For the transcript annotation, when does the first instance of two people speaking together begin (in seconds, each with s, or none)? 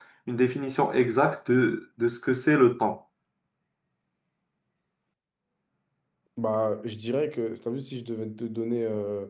none